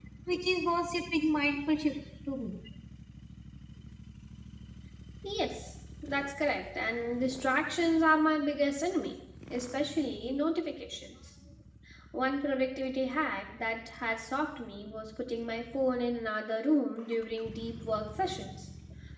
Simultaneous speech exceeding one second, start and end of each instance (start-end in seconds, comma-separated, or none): none